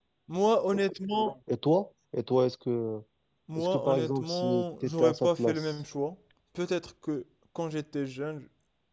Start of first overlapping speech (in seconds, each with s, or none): 3.6 s